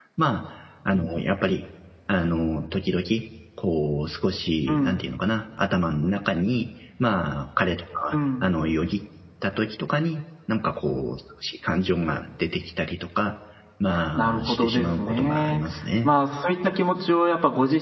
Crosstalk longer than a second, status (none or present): present